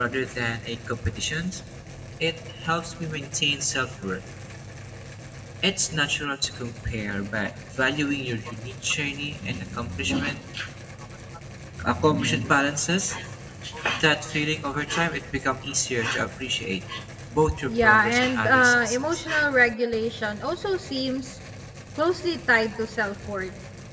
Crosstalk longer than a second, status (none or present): present